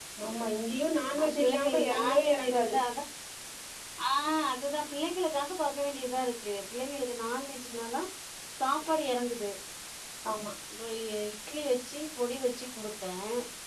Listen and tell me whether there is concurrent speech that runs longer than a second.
Yes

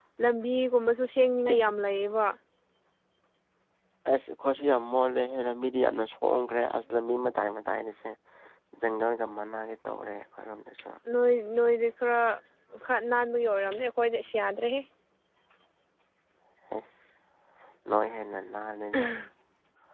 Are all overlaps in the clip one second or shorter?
Yes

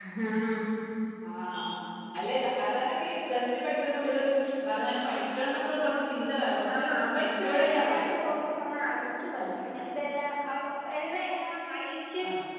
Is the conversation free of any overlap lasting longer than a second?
No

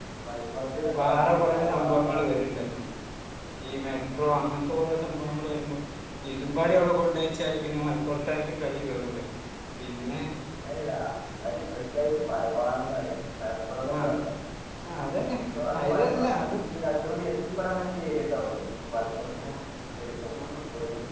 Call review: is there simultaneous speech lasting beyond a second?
Yes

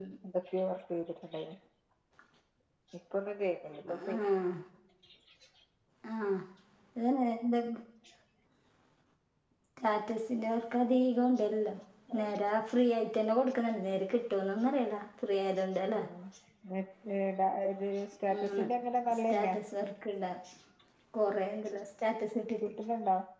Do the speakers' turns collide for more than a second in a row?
No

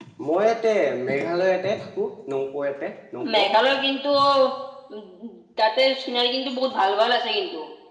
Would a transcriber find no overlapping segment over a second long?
Yes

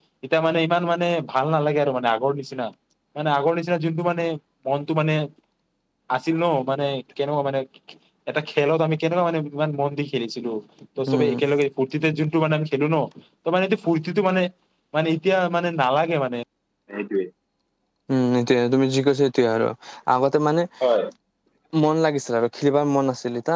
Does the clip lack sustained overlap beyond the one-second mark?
Yes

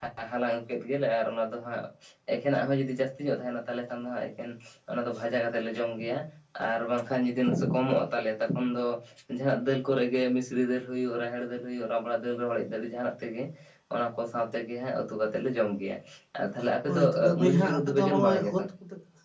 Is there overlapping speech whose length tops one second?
Yes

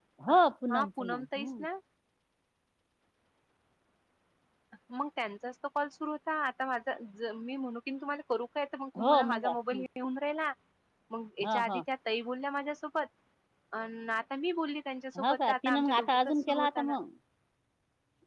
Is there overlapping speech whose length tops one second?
Yes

